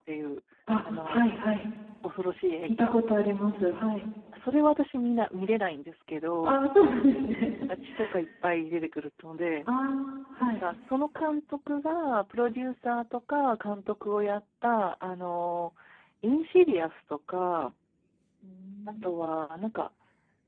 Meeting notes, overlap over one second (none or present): none